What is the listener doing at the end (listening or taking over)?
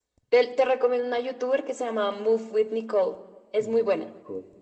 taking over